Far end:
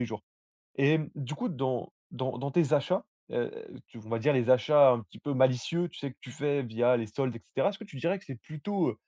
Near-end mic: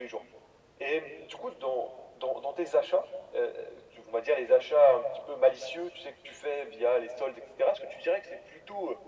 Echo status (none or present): present